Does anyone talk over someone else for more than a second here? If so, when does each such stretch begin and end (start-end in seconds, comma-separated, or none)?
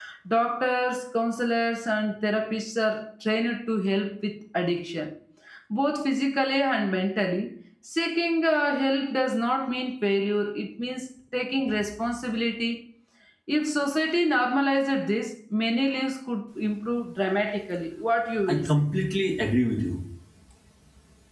none